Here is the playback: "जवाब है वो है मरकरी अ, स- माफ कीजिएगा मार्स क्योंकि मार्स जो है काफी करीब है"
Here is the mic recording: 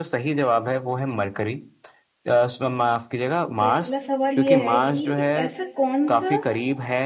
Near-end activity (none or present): present